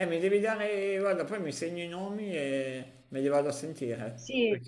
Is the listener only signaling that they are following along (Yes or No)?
No